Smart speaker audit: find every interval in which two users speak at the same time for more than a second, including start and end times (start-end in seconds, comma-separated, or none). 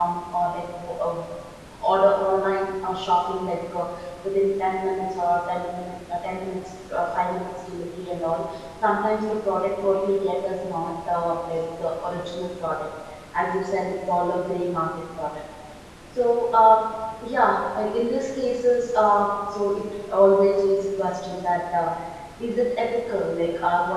none